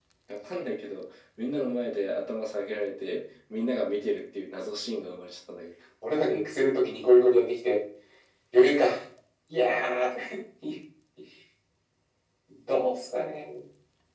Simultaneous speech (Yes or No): No